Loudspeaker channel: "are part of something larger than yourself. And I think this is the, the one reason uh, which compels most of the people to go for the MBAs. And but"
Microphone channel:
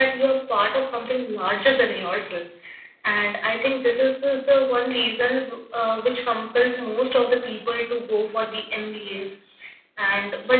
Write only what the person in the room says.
none

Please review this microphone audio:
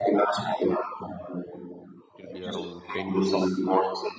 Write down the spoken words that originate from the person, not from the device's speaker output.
It will be around ten minutes.

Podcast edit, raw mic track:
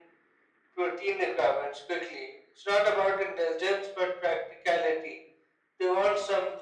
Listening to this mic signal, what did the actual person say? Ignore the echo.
none

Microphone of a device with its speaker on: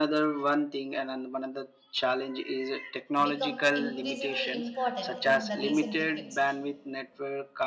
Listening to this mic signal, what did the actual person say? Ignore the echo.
become increasingly important in the recent decades

